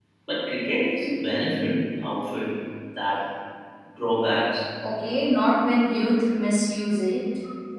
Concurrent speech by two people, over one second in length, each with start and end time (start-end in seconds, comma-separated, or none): none